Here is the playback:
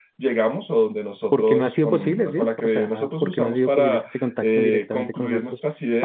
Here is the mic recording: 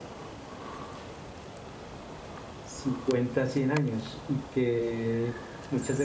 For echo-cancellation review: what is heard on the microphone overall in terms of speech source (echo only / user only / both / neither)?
user only